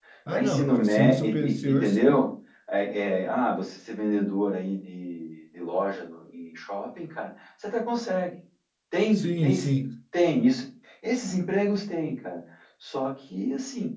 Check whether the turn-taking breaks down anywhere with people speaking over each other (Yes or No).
Yes